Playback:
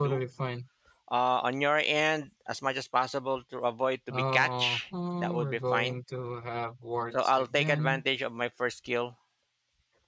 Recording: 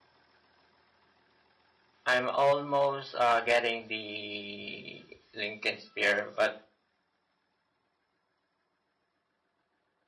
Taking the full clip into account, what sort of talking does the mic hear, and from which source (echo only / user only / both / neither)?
user only